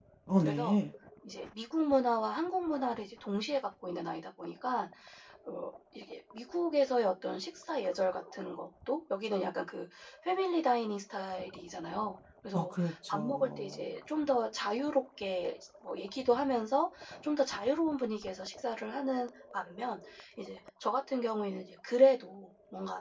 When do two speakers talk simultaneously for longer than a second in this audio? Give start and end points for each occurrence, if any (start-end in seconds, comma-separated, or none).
12.5-13.8